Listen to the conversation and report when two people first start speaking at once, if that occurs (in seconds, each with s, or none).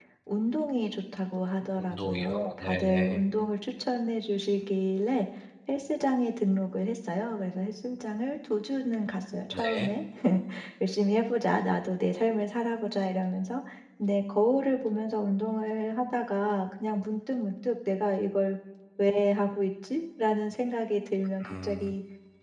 1.8 s